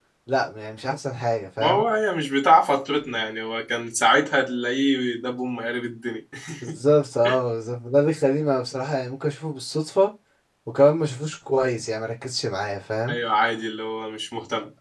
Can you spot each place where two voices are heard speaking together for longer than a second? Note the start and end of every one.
none

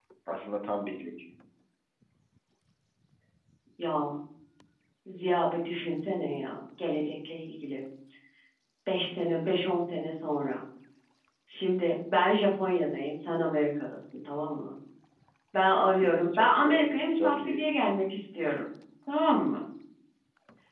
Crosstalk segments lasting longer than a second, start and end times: 16.4-17.6

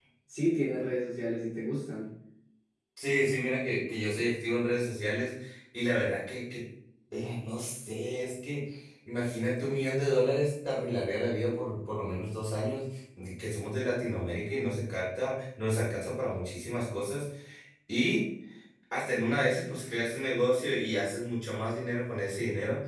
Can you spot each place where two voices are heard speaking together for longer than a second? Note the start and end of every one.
none

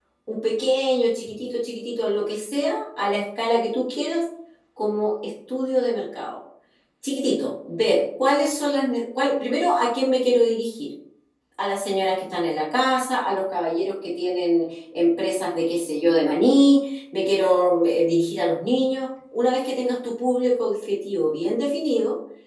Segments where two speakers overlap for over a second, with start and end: none

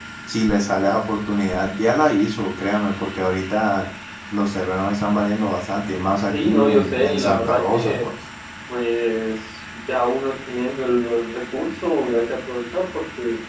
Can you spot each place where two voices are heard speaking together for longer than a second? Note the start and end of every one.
6.3-8.1

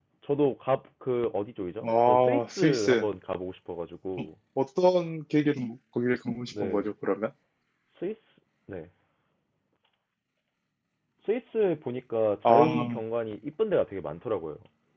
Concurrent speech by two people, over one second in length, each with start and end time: 1.8-3.1

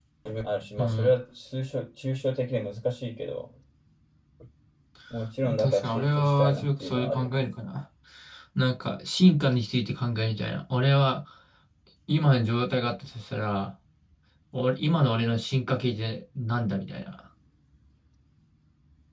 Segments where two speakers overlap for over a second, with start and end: 5.6-7.5

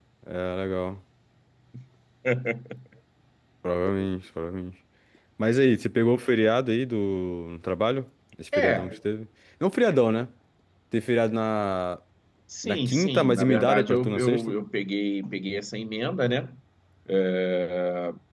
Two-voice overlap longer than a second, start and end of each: 12.6-14.5

